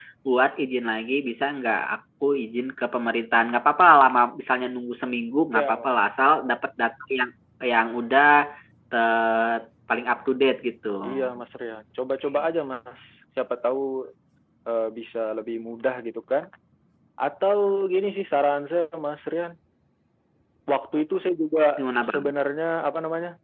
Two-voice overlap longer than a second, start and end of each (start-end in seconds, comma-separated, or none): none